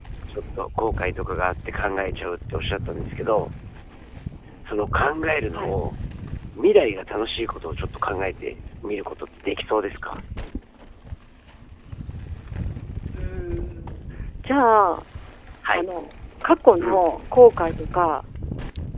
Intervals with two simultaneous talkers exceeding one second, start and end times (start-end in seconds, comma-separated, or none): none